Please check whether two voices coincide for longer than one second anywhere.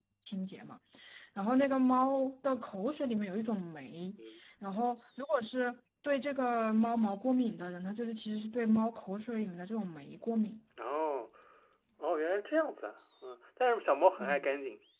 No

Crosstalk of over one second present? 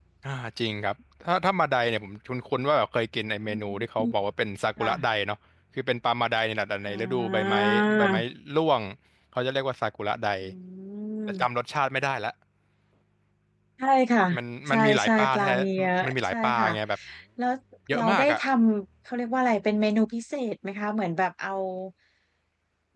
Yes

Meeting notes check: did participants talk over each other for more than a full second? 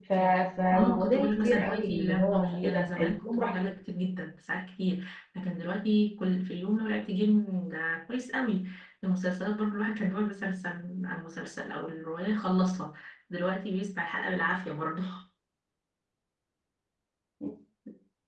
Yes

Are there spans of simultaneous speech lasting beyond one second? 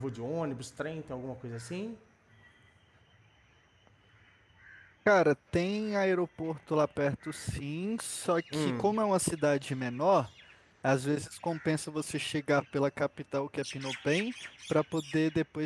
No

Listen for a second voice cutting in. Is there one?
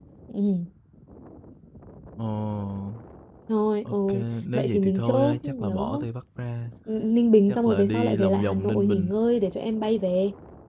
Yes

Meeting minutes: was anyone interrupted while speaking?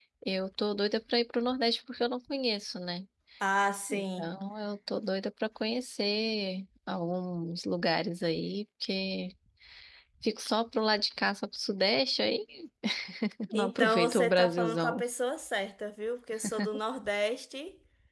Yes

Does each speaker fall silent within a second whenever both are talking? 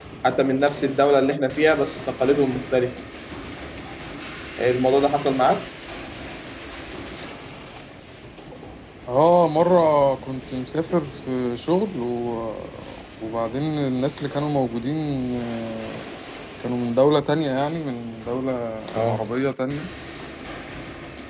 Yes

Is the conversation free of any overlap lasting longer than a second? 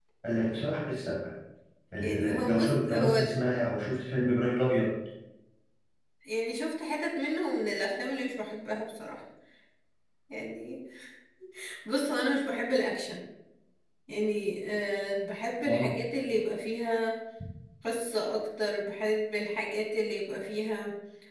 No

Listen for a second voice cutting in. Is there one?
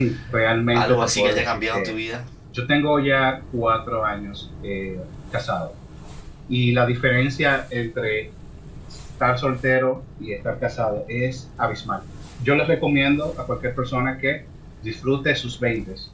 Yes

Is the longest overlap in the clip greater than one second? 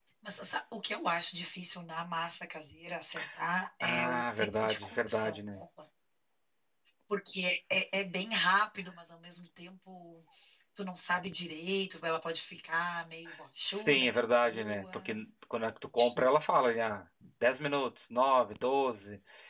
Yes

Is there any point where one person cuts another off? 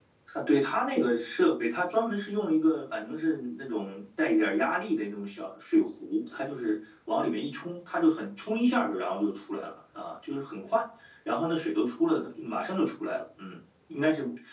No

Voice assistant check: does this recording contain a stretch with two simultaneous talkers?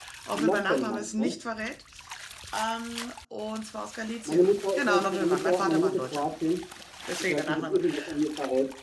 Yes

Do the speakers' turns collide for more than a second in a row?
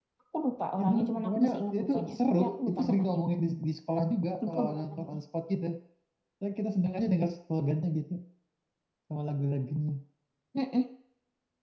Yes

